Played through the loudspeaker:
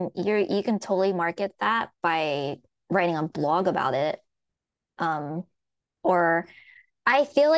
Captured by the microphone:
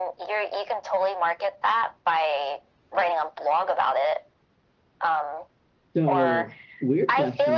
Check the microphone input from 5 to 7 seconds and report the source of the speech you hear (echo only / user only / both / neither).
both